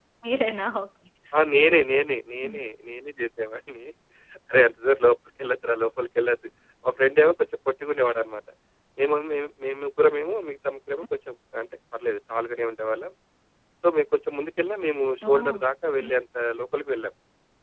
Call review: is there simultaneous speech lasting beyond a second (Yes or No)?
No